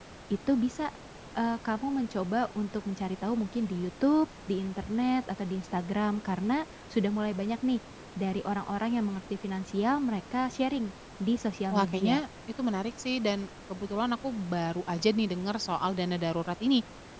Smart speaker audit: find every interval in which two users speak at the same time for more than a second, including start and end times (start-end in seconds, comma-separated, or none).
none